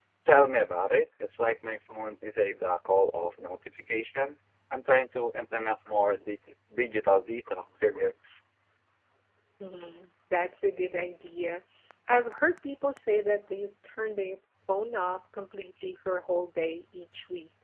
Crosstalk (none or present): none